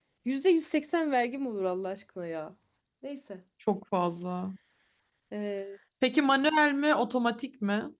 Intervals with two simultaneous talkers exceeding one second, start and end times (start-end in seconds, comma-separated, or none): none